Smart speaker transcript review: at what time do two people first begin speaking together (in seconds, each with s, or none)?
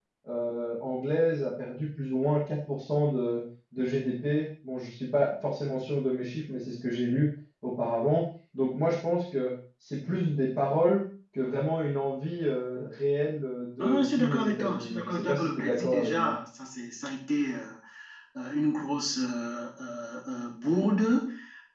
13.8 s